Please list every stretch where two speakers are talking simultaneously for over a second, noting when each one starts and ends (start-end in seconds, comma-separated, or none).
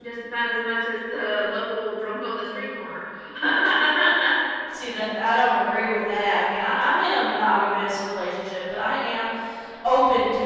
none